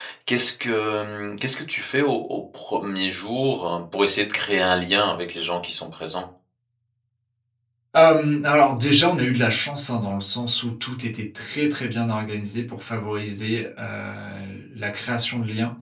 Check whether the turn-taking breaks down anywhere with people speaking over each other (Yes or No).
No